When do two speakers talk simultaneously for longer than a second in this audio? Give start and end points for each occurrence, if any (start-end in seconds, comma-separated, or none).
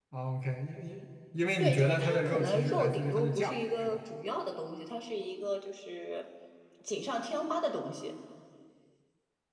1.6-4.0